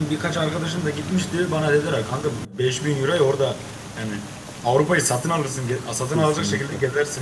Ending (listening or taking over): taking over